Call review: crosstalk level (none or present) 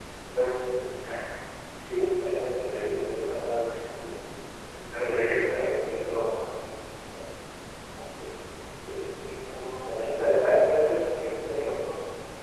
present